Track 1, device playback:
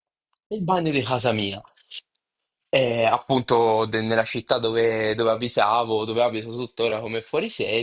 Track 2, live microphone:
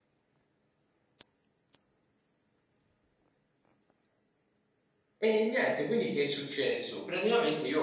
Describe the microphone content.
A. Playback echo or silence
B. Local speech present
B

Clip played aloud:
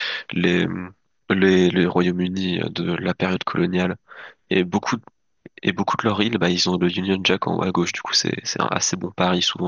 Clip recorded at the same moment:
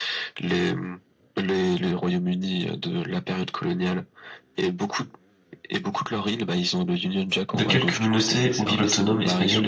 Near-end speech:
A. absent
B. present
B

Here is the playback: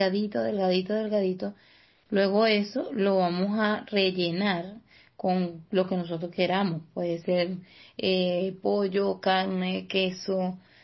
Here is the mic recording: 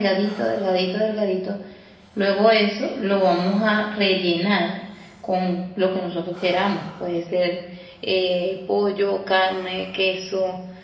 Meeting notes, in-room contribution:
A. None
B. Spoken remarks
A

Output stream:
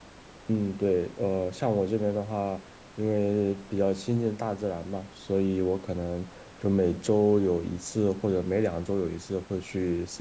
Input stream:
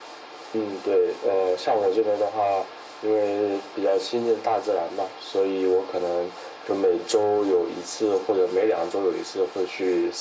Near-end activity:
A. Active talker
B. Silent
B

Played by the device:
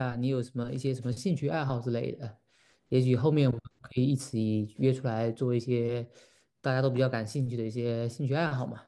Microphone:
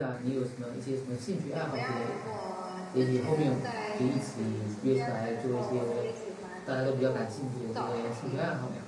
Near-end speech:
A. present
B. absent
A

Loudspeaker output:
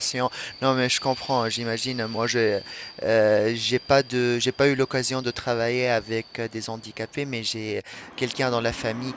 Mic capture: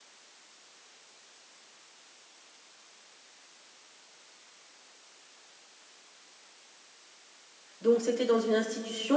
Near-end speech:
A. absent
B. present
B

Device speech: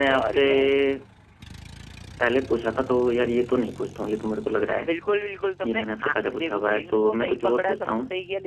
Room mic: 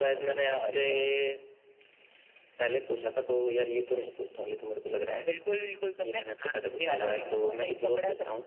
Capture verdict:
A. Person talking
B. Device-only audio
A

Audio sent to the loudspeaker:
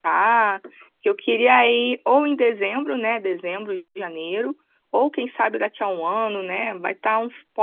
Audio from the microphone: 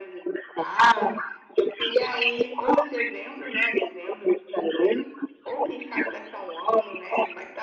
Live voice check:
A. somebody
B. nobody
B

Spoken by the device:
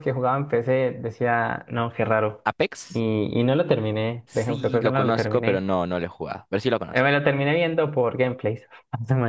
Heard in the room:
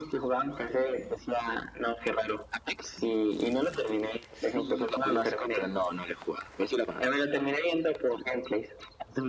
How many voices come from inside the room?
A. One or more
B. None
B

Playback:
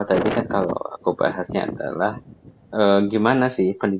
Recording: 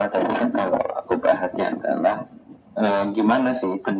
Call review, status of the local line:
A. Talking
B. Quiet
B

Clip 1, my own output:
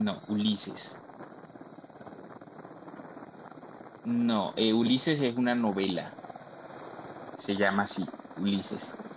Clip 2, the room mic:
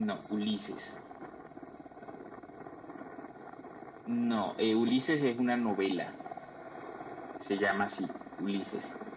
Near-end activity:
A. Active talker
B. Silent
B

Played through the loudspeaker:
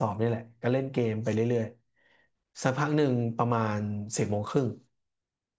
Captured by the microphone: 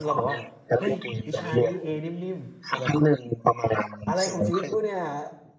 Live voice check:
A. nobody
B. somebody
B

